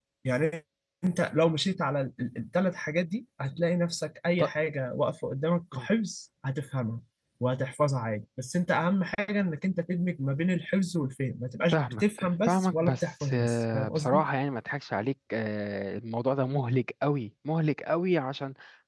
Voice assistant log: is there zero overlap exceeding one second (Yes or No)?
No